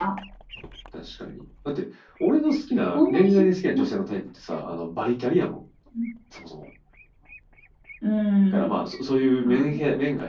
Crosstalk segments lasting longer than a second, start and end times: 2.9-4.2

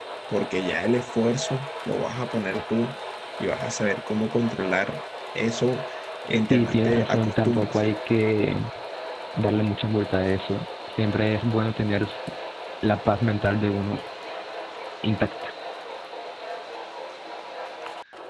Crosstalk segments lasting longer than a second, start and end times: 6.5-7.8

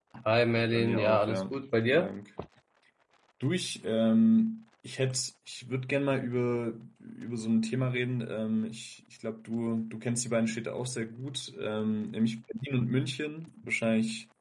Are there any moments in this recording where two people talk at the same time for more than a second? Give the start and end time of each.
0.7-2.1

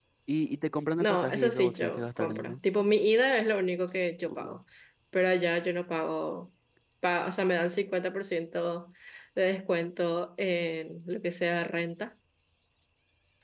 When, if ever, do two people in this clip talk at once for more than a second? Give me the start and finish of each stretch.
1.0-2.6

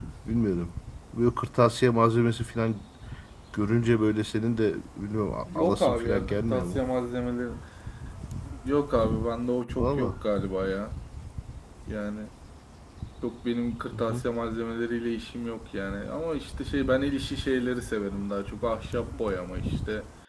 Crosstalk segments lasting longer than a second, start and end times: 5.5-6.8

